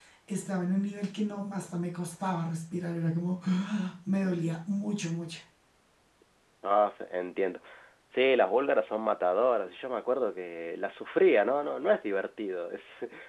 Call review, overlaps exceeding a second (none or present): none